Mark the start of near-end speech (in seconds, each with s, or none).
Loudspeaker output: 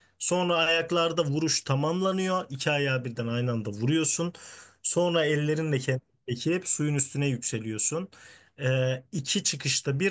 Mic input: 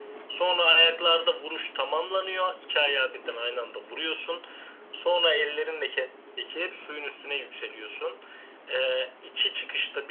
none